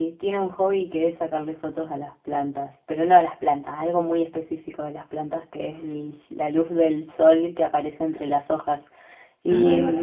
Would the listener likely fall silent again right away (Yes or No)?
Yes